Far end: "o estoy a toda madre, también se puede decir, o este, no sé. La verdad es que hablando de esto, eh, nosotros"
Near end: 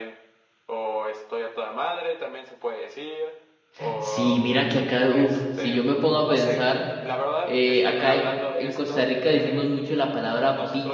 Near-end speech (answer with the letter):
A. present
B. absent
A